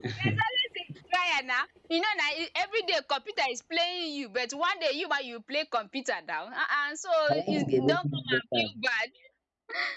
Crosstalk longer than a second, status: present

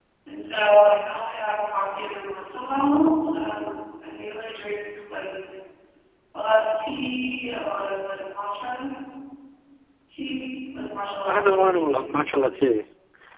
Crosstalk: present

